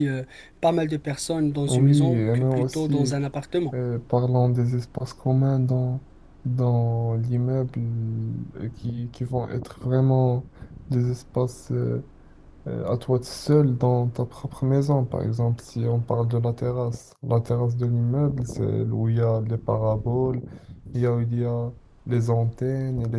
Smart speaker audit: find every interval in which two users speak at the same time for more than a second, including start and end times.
1.7-3.1

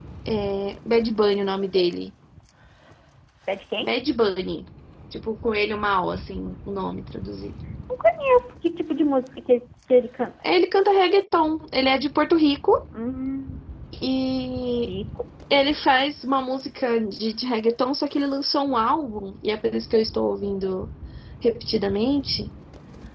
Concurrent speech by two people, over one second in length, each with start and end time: none

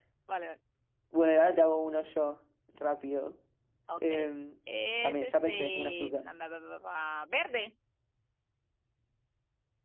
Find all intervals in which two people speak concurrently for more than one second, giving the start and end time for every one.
5.0-6.2

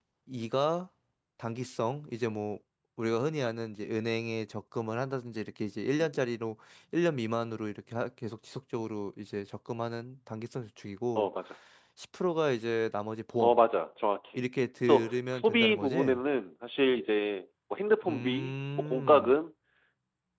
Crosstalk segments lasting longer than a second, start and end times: 14.8-16.2, 18.1-19.3

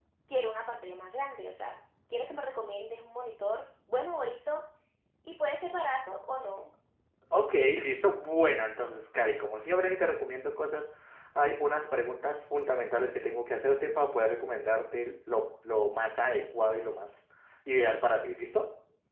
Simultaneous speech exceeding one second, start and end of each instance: none

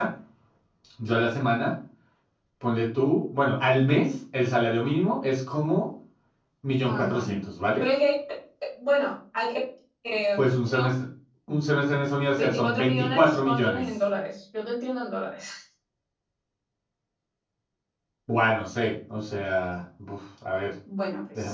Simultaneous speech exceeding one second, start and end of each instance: 12.4-13.8

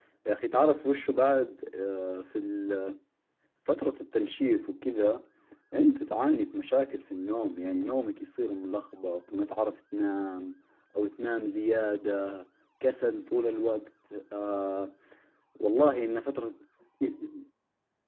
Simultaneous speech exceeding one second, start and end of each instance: none

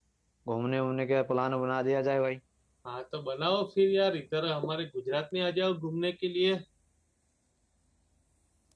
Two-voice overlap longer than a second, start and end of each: none

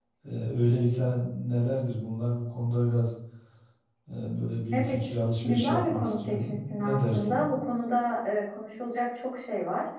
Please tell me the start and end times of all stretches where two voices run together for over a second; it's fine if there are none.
5.4-7.4

